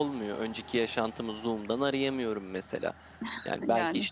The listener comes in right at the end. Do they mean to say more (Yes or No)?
No